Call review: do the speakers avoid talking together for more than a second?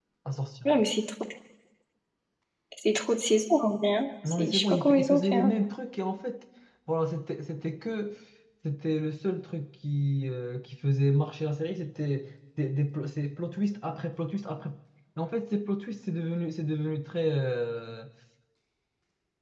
No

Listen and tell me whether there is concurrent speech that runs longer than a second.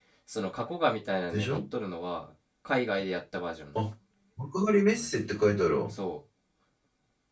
No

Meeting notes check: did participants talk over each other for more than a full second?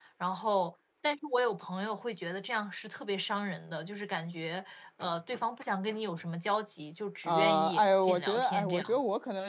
Yes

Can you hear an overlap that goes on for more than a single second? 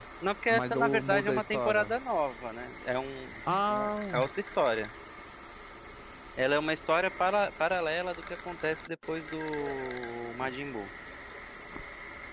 Yes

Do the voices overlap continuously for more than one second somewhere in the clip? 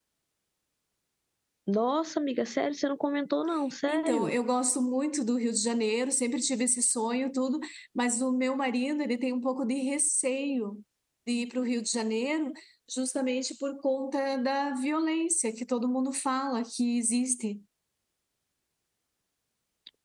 No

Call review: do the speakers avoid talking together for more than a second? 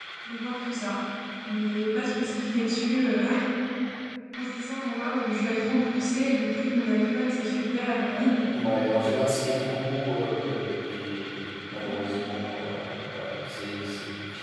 Yes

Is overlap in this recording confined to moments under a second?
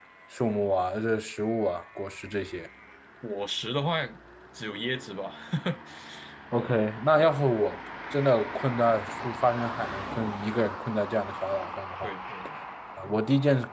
Yes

